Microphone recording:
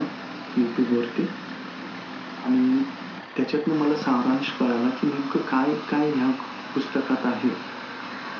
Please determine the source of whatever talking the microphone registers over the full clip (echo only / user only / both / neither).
echo only